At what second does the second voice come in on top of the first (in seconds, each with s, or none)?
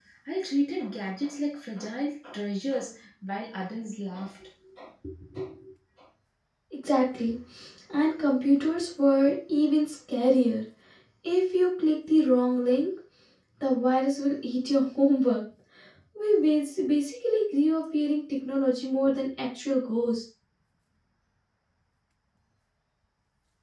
none